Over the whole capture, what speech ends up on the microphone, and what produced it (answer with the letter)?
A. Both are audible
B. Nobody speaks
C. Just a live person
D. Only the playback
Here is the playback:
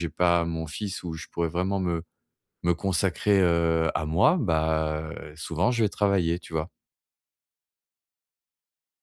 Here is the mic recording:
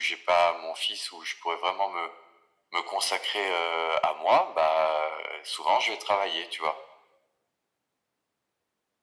D